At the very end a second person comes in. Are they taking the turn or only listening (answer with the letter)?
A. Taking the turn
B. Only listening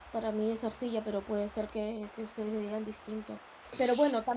B